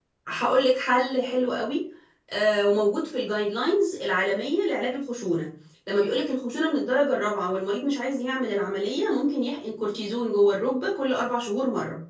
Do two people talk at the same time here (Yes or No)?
No